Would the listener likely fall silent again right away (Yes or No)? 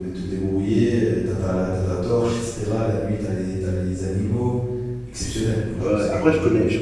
No